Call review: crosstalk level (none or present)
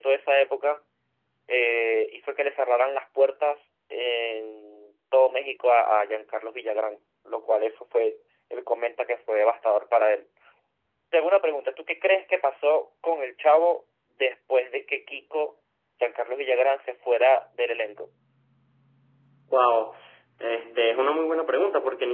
none